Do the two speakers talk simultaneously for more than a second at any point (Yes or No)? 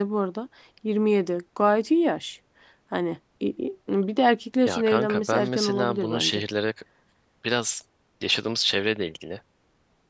Yes